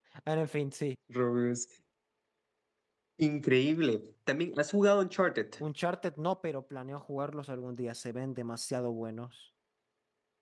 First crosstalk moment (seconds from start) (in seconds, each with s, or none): none